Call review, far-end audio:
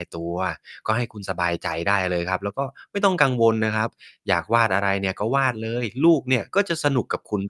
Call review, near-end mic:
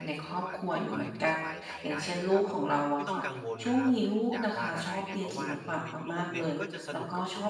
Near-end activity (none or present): present